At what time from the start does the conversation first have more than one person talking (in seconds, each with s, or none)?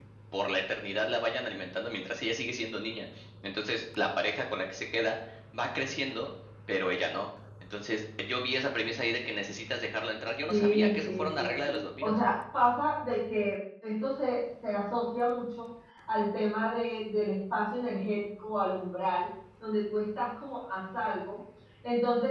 10.5 s